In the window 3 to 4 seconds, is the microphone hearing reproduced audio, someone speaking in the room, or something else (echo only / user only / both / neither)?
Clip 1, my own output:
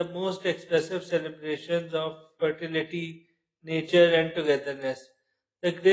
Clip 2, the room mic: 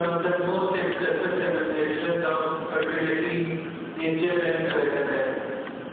echo only